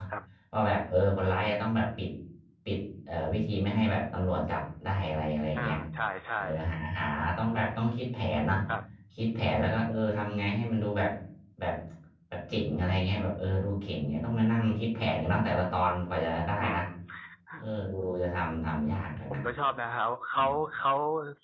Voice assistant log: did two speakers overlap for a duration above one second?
No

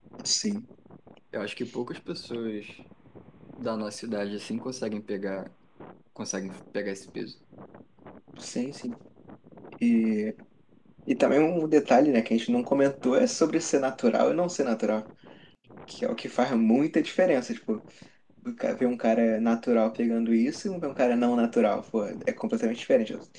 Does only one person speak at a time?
Yes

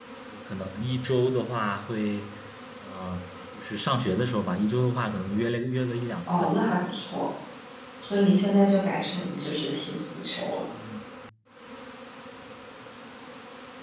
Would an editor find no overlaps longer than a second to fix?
Yes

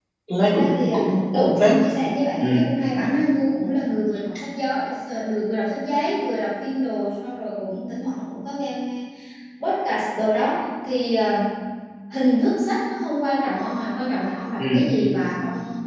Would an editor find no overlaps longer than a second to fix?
No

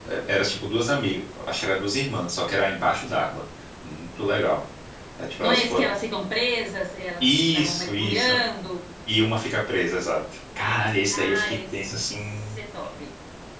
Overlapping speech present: Yes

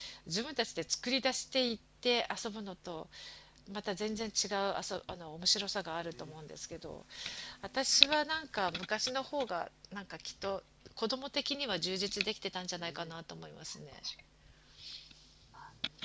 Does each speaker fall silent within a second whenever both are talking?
Yes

